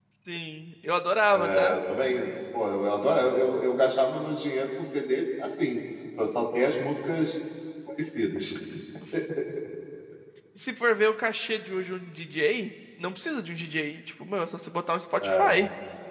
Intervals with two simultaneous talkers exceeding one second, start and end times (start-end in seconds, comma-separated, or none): none